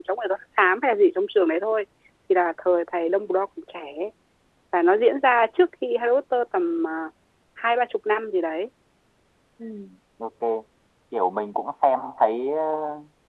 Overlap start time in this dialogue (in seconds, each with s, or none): none